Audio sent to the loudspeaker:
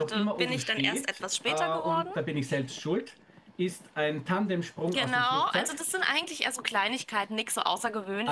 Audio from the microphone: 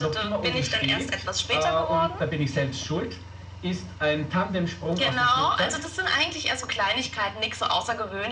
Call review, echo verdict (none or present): present